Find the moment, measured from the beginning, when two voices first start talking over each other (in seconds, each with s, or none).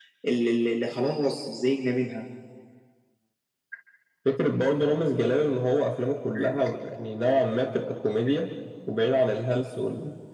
none